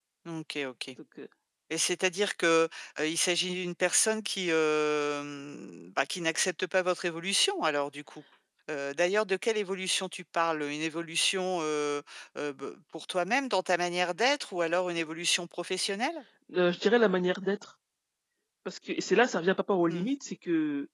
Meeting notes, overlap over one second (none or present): none